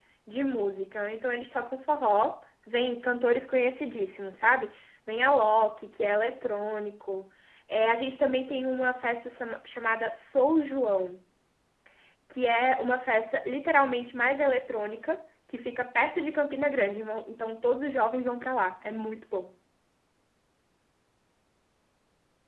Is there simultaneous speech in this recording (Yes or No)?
No